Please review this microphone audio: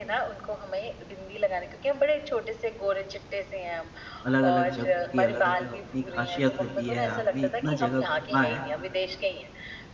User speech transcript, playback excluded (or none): अलग-अलग जगहों की अलग-अलग अपनी ख़ासियत होती है, आपने इतना जगह घूमा है,